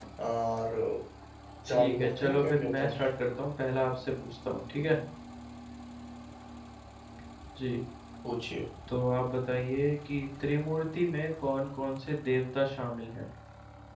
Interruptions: present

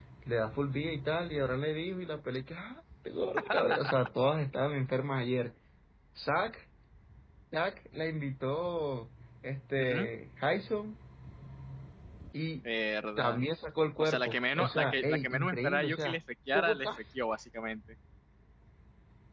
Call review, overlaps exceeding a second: present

